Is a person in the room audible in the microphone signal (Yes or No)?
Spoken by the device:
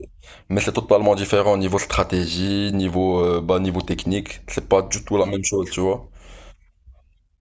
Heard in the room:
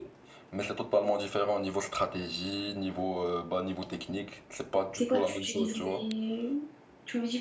Yes